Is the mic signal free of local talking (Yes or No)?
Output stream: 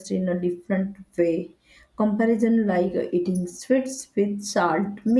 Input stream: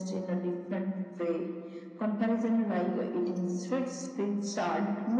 Yes